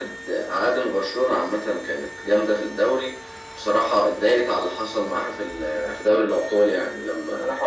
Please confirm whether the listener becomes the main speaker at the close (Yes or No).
Yes